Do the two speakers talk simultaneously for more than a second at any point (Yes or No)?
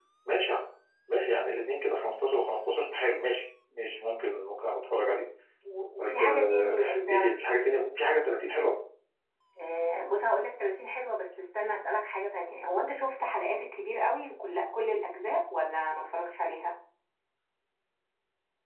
Yes